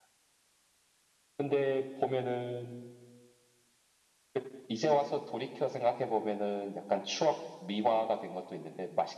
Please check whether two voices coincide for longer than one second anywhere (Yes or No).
No